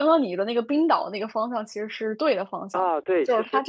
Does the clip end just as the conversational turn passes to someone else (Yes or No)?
Yes